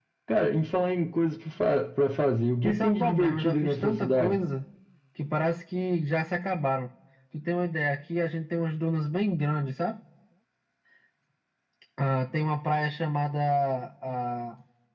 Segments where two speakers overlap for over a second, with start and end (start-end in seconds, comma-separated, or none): 2.6-4.4